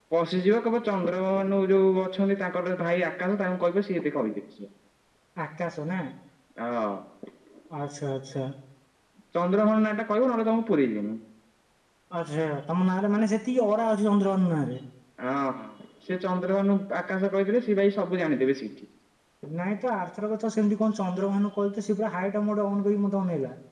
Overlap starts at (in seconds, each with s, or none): none